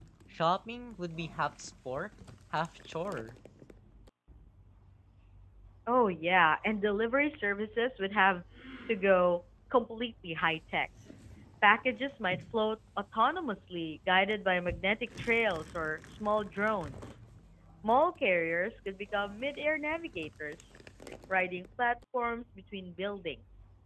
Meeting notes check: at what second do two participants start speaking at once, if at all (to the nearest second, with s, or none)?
none